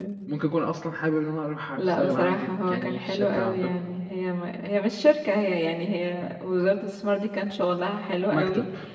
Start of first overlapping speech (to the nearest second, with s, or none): 2 s